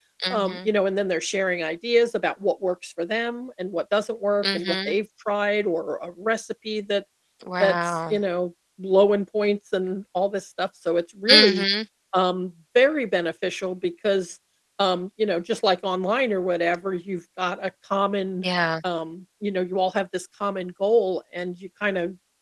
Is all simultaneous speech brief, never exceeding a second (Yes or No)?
Yes